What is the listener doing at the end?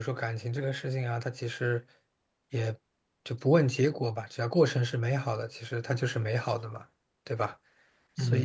taking over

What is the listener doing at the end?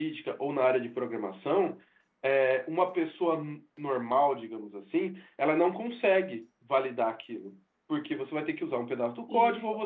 listening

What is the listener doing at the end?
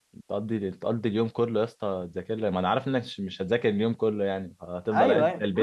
taking over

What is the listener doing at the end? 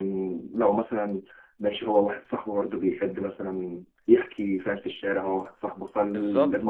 taking over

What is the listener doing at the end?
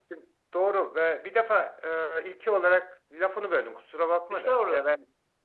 listening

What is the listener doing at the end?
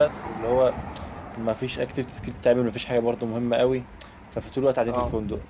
listening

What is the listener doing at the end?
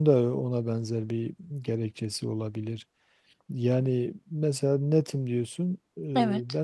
listening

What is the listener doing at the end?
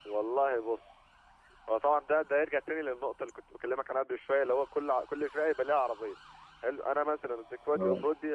listening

